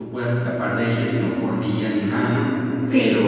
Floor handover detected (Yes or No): No